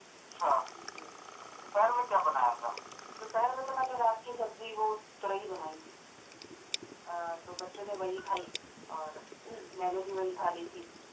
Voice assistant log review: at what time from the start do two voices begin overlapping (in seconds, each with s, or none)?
none